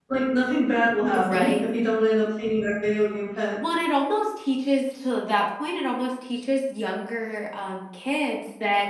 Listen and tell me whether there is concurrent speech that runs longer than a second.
No

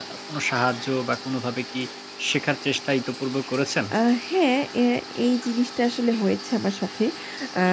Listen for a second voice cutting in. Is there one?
No

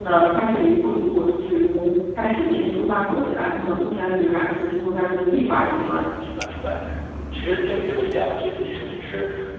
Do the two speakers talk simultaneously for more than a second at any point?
No

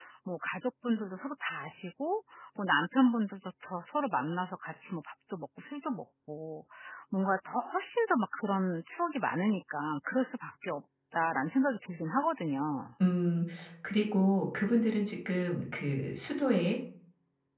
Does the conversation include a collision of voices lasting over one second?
No

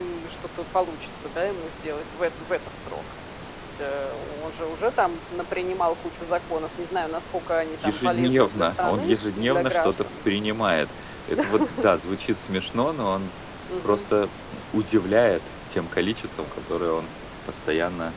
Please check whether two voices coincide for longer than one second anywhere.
Yes, from 7.8 s

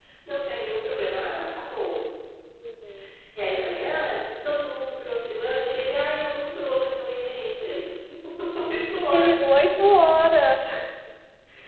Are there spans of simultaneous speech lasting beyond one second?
No

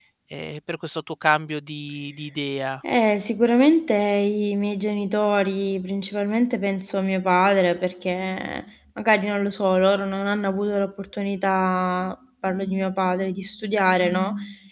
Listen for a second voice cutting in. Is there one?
No

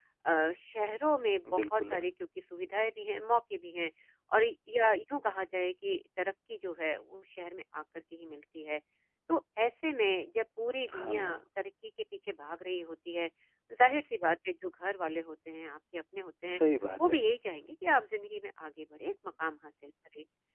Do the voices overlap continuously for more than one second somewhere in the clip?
No

